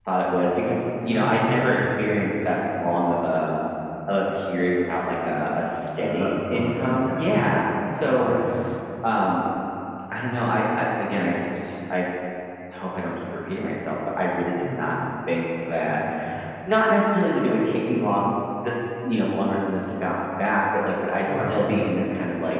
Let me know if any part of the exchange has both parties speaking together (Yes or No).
Yes